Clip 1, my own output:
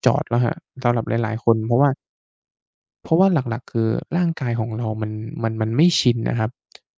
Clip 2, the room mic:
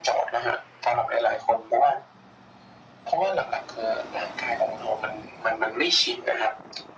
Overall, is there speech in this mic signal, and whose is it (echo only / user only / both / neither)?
echo only